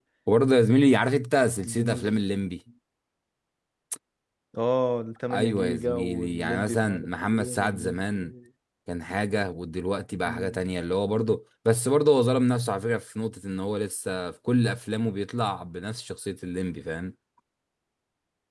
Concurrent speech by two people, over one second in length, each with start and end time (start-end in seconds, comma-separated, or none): 5.3-8.3